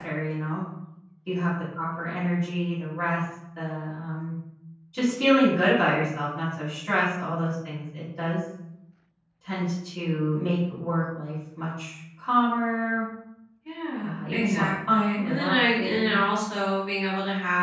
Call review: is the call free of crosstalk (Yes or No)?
No